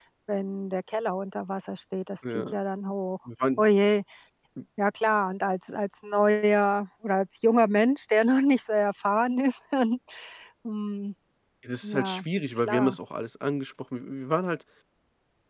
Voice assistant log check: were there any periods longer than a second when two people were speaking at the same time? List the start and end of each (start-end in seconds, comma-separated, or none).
none